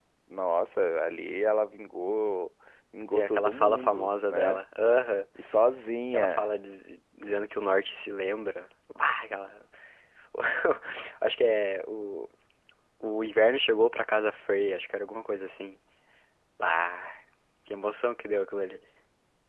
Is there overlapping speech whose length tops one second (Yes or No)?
Yes